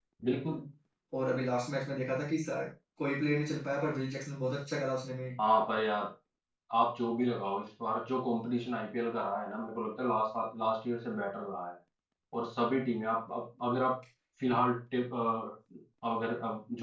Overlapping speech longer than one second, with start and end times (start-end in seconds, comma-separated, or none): none